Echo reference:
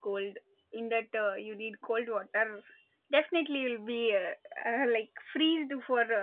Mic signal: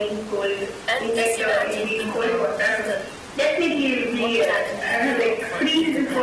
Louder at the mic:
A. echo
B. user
A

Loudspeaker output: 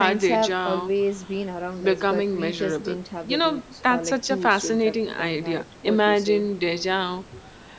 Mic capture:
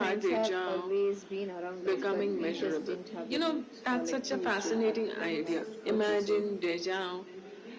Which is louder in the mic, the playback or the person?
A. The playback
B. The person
A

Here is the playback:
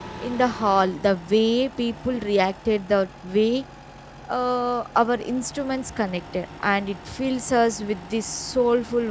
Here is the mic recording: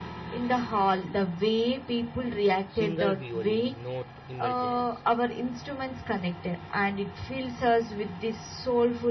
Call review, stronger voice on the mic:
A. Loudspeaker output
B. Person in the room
A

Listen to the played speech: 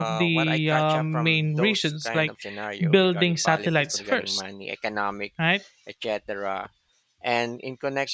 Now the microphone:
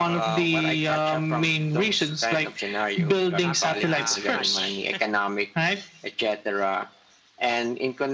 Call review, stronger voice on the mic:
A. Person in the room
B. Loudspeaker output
B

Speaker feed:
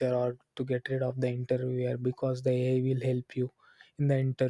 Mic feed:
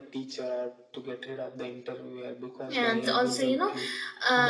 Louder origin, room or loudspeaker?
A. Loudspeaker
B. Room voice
B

